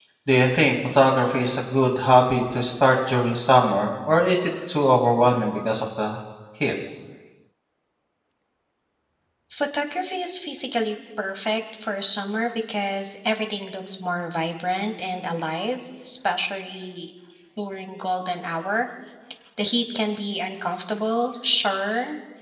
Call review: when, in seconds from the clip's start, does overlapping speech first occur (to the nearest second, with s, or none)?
none